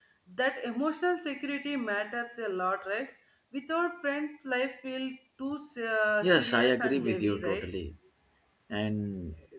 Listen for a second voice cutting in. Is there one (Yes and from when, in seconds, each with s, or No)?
Yes, from 6.2 s